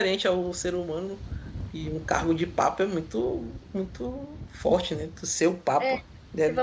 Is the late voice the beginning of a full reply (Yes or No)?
Yes